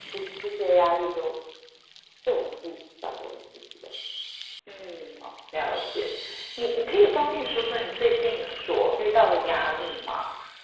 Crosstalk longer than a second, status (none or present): none